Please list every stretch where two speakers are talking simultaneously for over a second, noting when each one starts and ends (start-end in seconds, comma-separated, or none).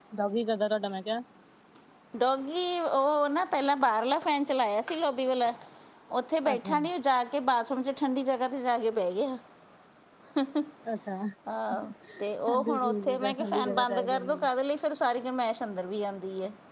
12.5-14.5